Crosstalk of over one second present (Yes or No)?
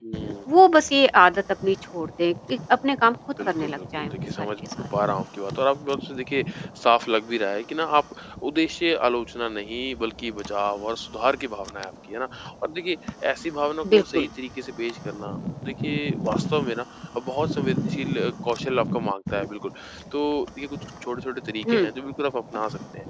Yes